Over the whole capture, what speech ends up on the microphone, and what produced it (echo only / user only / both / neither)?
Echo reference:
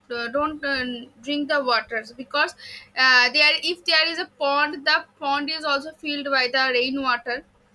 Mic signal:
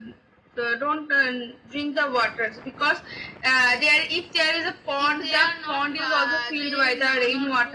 both